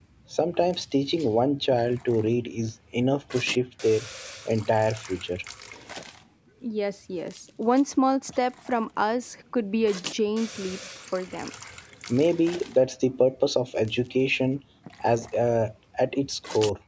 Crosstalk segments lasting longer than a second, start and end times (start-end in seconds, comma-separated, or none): none